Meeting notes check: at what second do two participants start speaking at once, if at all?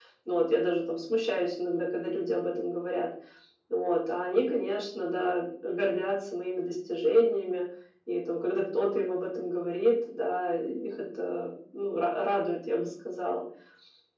none

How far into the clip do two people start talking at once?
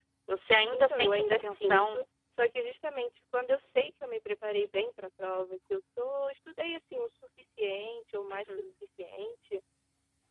0.7 s

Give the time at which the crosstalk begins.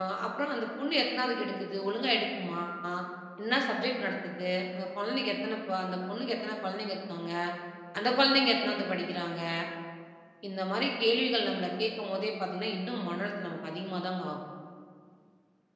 none

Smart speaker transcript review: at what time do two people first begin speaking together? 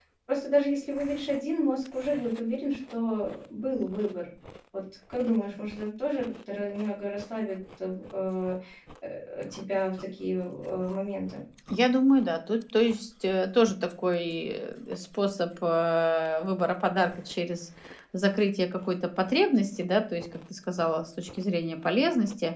none

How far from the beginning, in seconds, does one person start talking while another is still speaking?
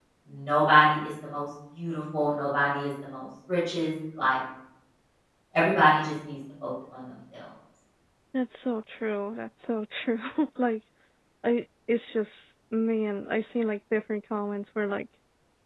none

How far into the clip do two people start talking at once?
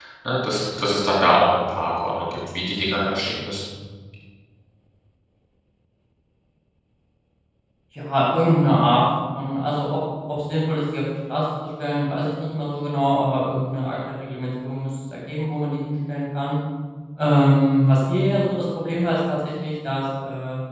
none

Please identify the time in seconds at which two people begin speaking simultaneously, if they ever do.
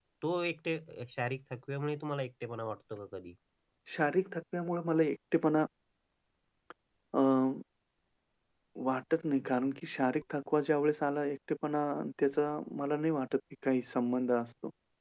none

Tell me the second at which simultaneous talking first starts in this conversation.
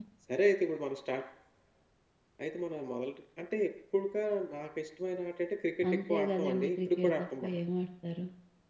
6.1 s

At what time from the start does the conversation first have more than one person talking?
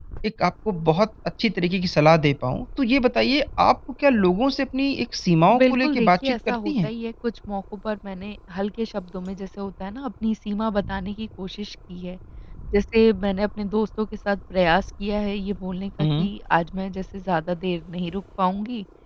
5.6 s

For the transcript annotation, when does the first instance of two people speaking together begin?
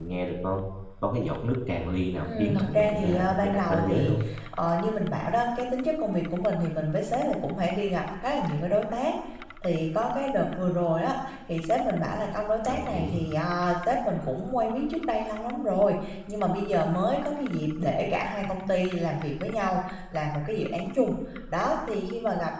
2.2 s

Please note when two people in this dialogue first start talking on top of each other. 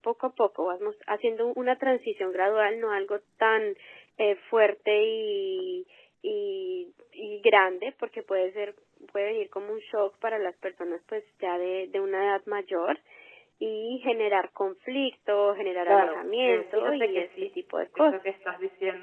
15.9 s

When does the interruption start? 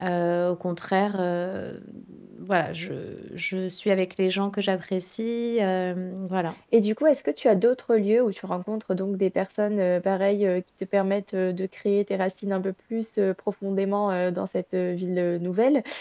none

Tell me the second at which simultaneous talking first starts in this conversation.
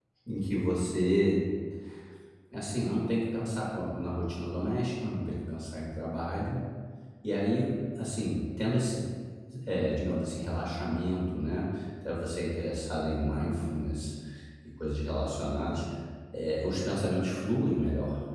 none

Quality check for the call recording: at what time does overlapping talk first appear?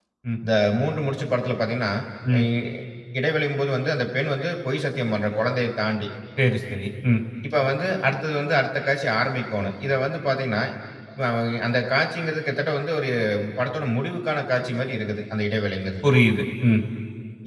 none

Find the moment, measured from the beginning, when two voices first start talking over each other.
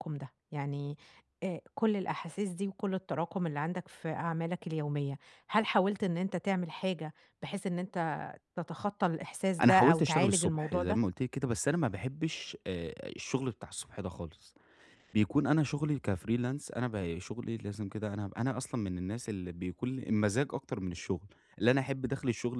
9.6 s

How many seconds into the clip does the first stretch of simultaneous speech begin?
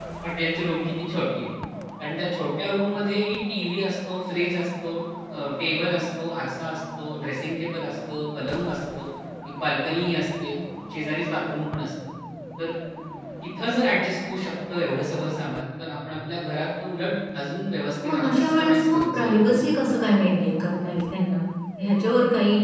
18.0 s

